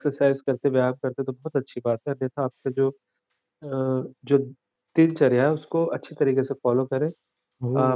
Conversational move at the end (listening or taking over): listening